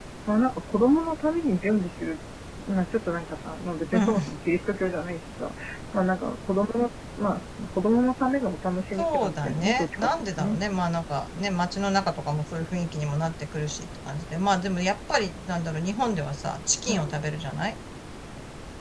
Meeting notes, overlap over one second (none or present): present